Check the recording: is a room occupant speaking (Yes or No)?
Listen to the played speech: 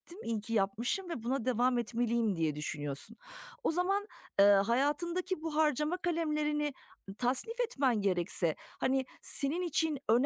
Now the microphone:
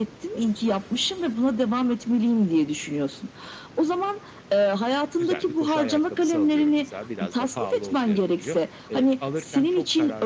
Yes